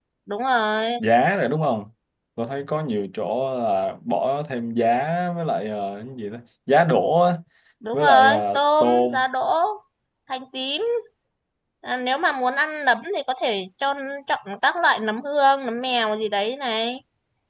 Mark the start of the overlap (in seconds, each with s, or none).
7.9 s